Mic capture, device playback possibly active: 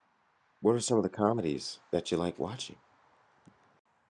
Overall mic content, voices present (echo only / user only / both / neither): user only